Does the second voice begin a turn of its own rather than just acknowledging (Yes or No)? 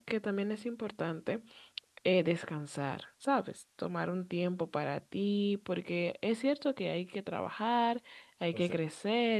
No